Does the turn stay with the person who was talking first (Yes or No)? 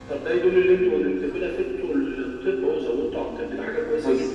No